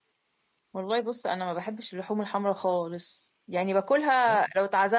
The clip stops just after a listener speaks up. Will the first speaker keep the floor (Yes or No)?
Yes